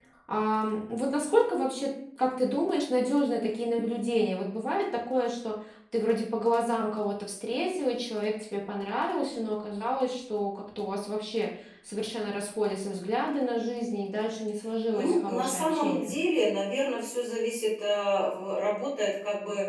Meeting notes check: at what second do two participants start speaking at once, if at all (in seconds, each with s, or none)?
14.9 s